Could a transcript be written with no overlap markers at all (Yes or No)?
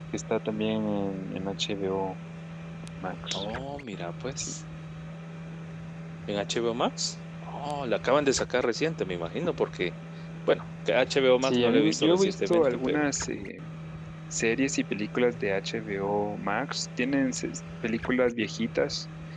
No